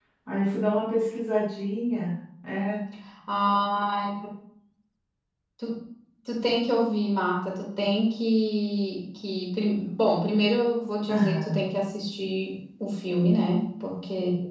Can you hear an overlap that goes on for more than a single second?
No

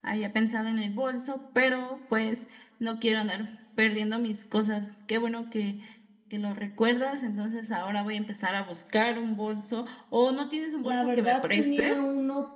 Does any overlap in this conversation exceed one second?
Yes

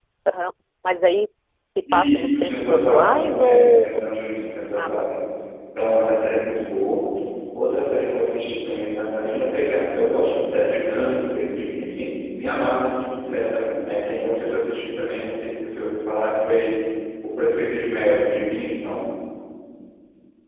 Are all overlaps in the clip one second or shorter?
No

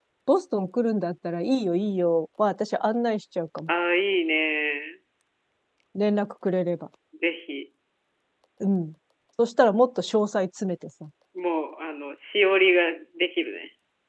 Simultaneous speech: No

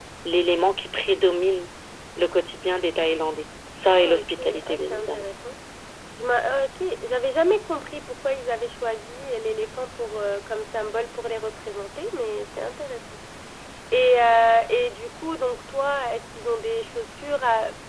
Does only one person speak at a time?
No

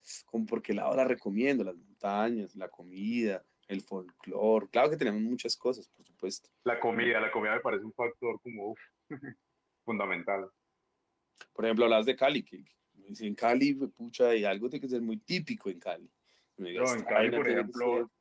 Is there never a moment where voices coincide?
No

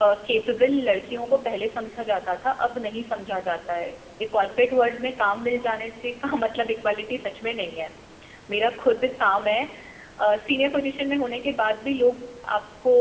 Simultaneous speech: No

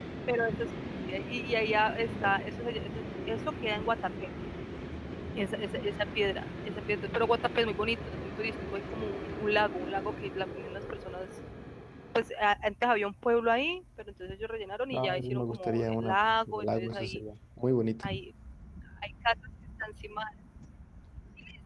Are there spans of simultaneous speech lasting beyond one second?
Yes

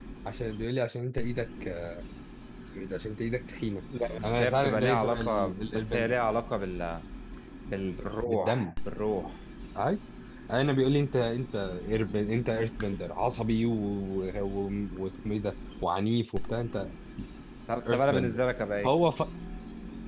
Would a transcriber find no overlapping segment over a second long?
No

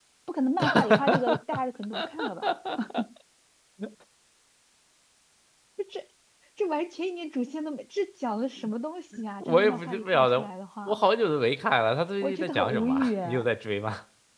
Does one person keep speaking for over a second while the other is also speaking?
Yes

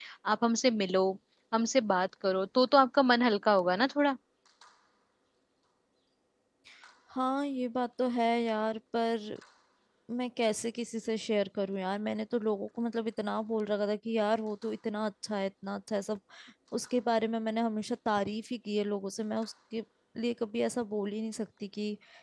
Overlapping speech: No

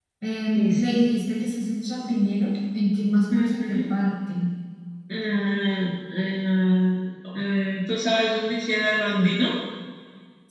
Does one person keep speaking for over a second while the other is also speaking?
No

